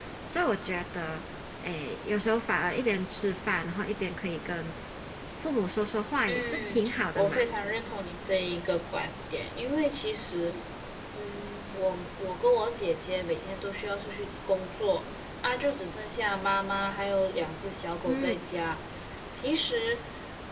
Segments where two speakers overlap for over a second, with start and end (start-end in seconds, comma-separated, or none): 6.3-7.5